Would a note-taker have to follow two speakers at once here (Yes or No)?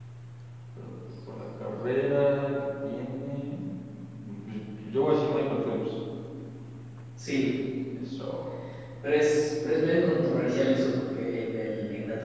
No